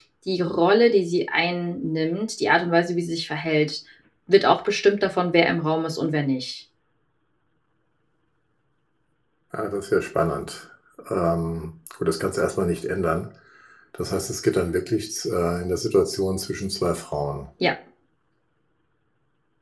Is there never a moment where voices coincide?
Yes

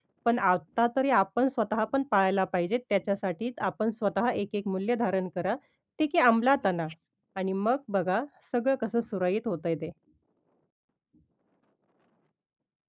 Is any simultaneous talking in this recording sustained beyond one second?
No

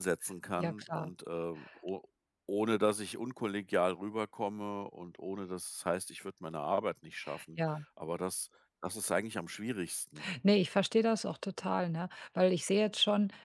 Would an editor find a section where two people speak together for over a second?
No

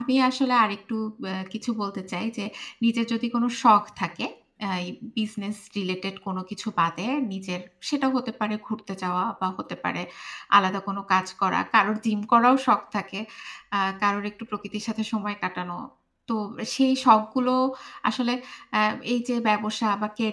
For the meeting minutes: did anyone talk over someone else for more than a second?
No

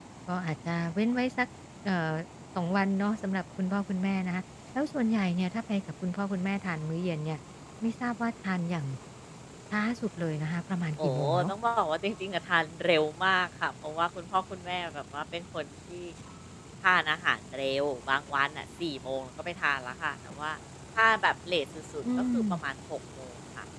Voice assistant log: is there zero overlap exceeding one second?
Yes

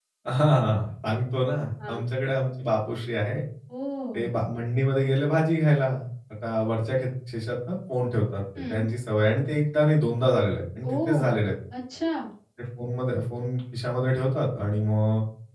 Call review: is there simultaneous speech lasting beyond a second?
No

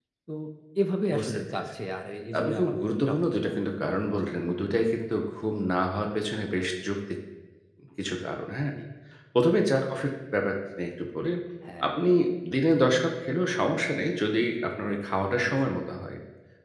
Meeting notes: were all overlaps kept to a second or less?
No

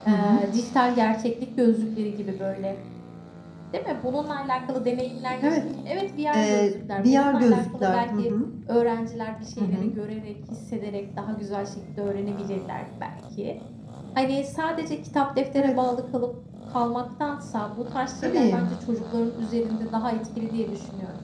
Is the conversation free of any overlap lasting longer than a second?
No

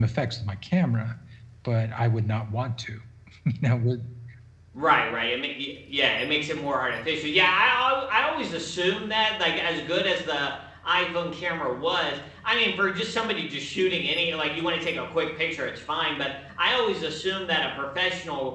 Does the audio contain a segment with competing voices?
No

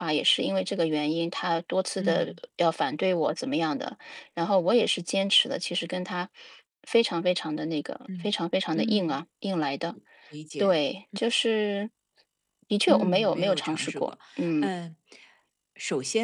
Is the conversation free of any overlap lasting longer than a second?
No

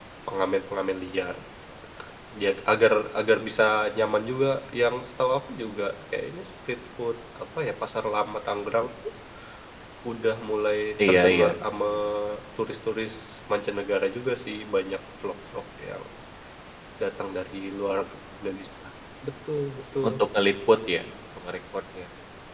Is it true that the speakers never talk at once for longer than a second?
Yes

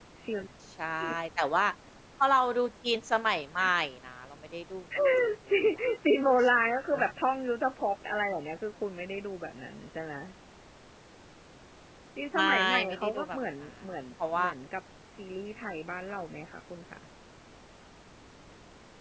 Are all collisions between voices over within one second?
No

